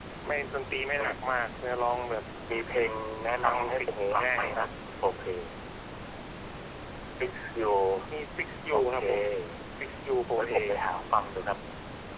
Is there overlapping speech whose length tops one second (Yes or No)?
Yes